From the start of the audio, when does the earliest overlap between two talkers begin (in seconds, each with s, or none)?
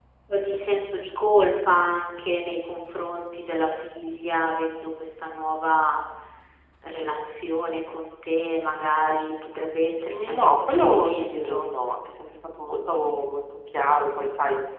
10.0 s